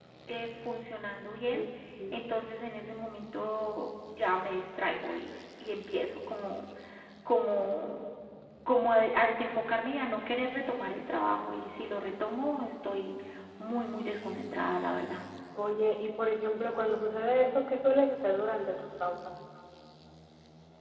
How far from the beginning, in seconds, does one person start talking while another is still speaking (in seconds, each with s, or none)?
none